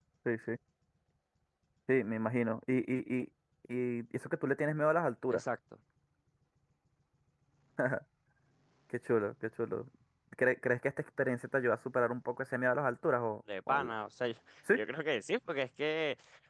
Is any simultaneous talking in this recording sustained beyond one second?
No

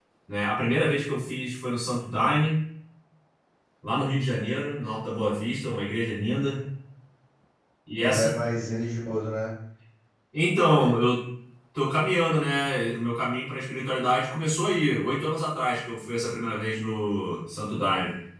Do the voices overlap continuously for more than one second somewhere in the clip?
No

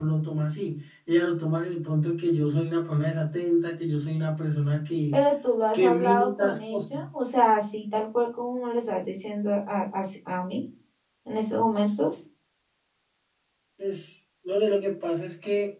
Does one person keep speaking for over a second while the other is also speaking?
Yes, from 5.7 s

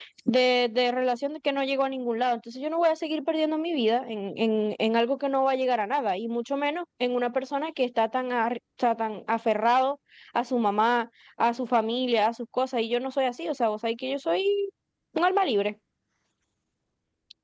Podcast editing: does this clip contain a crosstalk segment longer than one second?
No

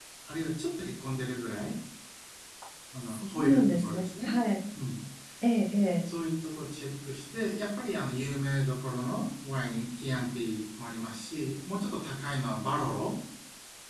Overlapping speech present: Yes, from 3.1 s

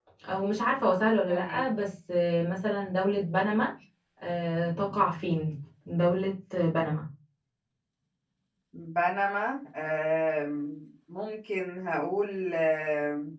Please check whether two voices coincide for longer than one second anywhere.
No

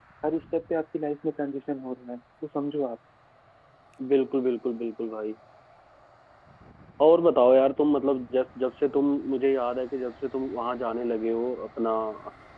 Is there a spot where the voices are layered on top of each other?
No

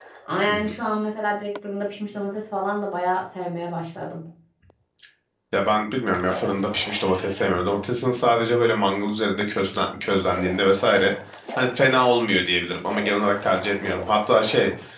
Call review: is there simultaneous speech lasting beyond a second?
No

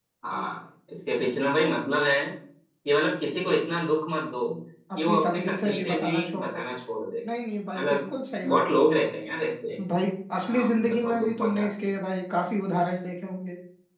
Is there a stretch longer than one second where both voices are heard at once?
Yes, from 5.1 s

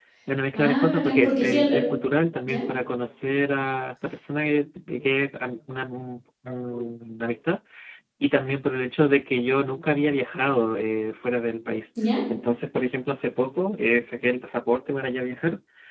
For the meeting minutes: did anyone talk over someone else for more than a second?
Yes, from 0.6 s

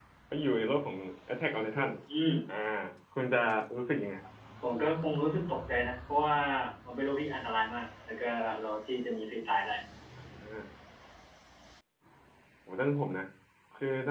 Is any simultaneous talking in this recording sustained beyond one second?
No

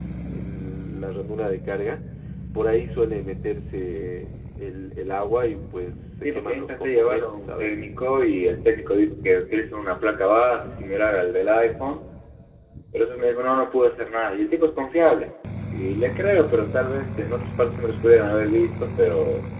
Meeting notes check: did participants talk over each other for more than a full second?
Yes, from 6.2 s

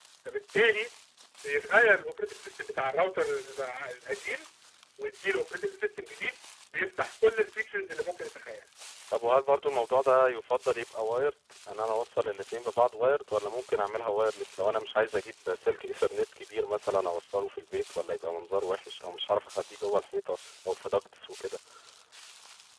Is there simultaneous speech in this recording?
No

